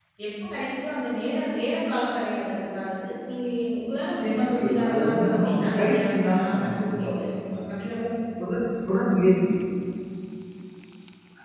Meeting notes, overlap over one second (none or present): present